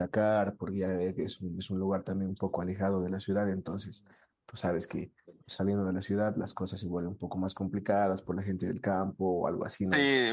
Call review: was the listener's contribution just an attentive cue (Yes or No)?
No